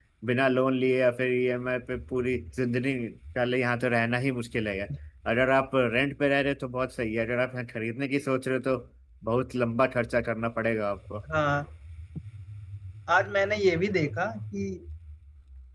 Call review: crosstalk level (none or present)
none